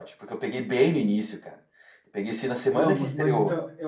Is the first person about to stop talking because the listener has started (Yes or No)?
Yes